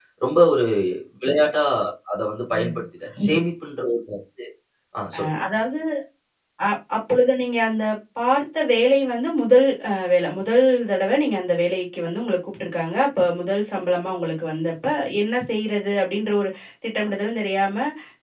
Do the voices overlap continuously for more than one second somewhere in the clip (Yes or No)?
No